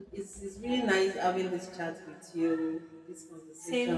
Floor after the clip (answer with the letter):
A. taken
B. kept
A